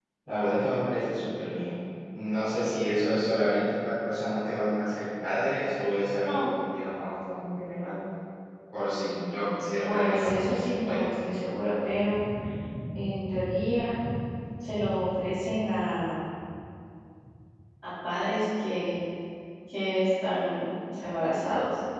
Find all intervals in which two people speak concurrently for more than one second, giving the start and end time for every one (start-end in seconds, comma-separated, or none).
9.8-11.1